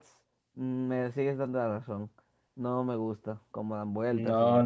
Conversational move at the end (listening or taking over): taking over